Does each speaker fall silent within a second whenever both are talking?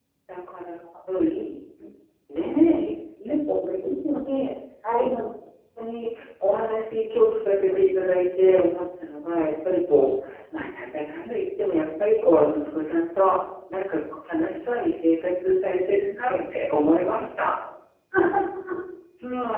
Yes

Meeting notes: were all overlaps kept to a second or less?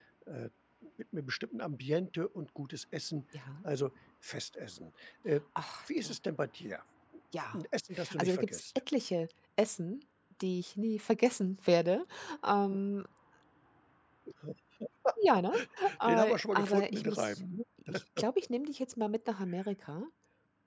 No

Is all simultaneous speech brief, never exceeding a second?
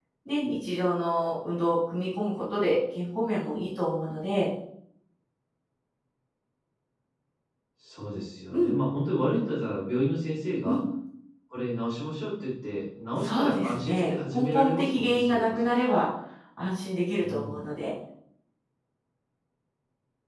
No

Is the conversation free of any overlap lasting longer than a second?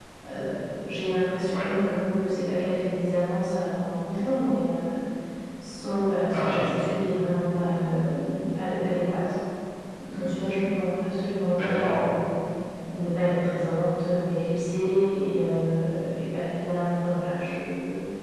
Yes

